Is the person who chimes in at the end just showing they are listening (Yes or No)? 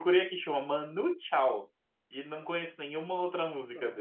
No